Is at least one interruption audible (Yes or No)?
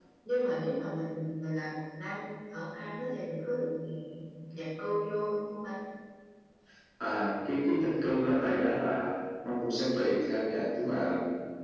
No